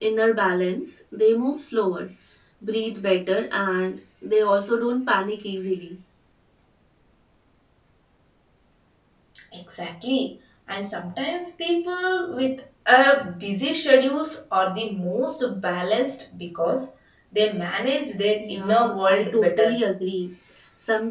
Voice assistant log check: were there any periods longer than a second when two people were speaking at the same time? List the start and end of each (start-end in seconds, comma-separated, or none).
18.4-19.8